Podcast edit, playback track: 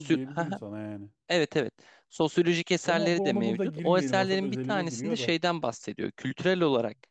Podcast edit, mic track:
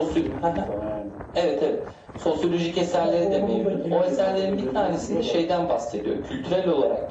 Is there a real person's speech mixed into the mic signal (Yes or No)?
No